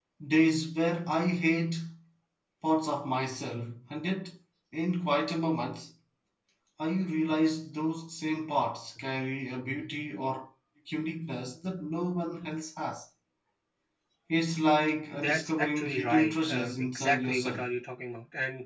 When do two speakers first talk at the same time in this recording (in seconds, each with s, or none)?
15.1 s